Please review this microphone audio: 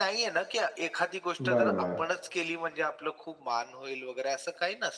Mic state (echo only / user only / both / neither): both